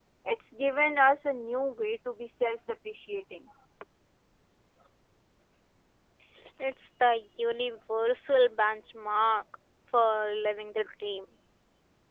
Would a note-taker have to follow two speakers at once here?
No

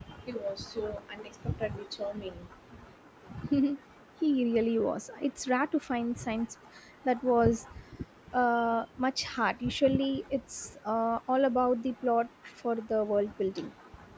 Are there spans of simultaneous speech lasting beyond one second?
No

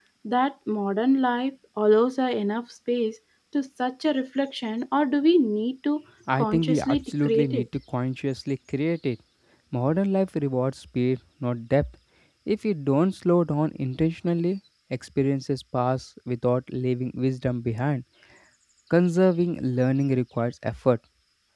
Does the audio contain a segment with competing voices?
Yes, from 6.3 s

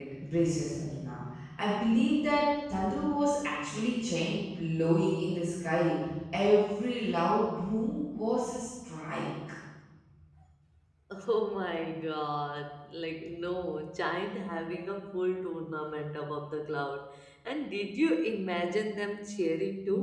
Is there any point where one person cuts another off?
No

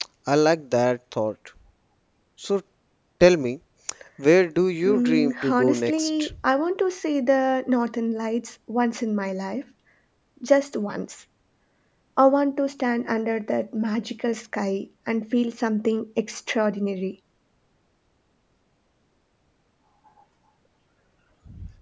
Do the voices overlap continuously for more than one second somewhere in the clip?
Yes, from 4.8 s

